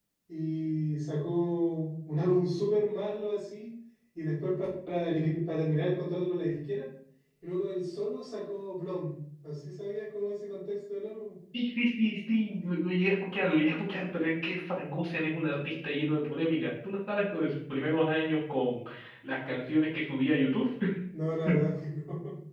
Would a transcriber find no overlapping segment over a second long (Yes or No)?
Yes